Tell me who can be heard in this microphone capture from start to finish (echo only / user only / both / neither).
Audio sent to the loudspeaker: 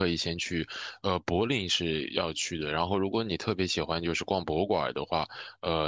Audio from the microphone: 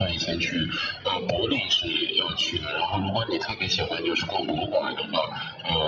echo only